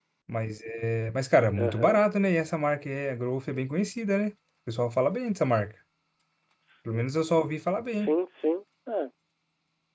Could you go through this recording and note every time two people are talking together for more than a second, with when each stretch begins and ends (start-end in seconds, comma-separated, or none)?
none